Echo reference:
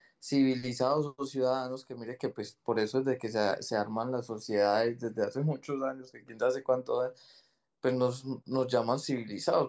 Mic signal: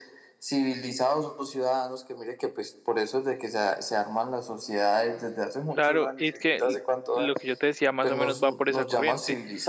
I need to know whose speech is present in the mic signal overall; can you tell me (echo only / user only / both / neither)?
both